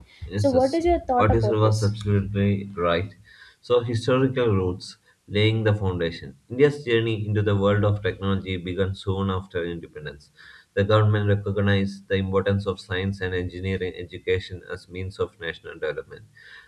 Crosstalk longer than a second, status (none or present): present